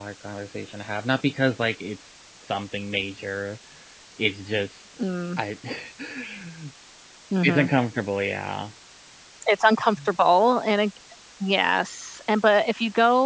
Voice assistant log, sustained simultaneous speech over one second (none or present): none